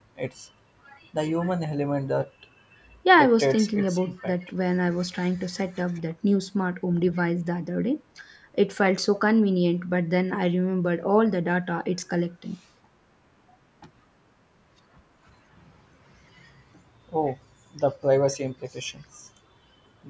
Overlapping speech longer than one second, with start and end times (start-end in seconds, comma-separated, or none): 3.2-4.5